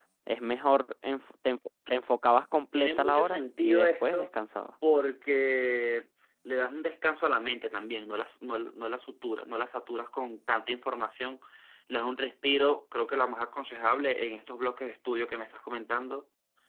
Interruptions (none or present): present